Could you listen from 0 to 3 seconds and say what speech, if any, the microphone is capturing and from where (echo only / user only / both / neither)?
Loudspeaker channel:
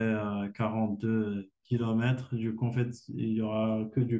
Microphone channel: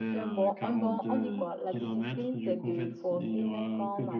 both